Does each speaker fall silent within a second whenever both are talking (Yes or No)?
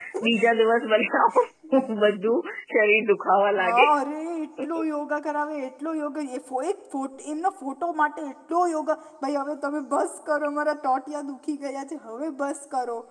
Yes